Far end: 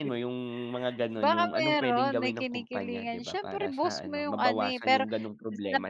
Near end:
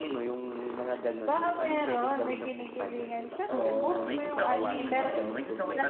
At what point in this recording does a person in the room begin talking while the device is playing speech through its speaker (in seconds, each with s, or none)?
3.5 s